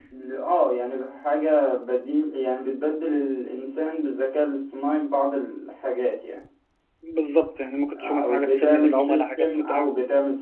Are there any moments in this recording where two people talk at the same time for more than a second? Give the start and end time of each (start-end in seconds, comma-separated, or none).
8.0-9.9